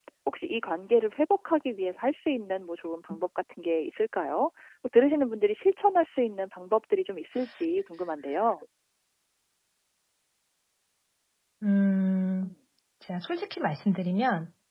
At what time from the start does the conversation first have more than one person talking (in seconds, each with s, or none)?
none